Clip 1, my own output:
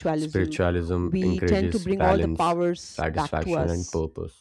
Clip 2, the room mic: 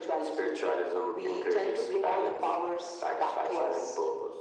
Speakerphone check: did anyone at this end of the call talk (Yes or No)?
No